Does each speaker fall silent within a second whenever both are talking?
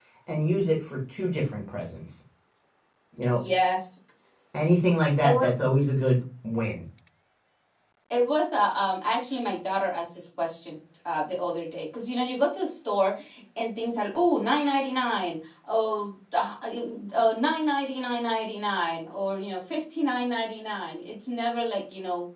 Yes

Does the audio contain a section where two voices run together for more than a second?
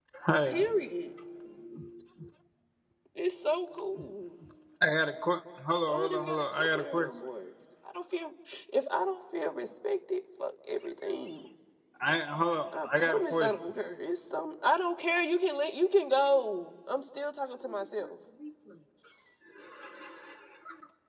Yes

